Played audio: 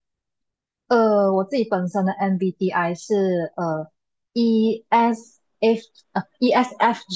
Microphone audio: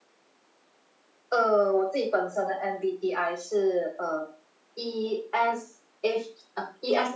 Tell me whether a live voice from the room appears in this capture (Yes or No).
No